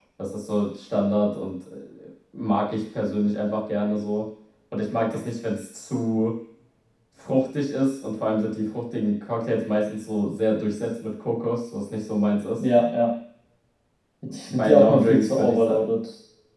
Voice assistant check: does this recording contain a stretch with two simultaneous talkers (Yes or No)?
Yes